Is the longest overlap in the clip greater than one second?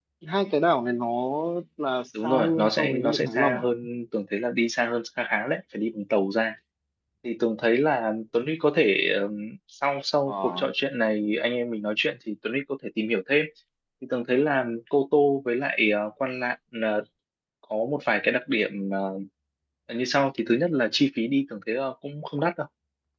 Yes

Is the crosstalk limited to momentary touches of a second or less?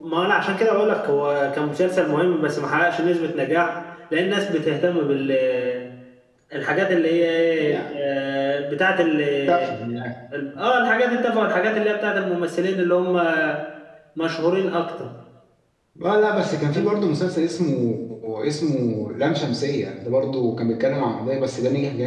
Yes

